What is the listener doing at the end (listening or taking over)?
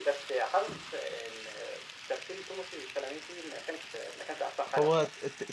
taking over